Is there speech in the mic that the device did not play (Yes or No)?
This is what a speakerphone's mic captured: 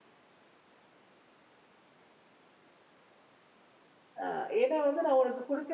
Yes